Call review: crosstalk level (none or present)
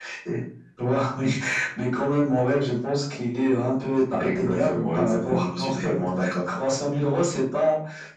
present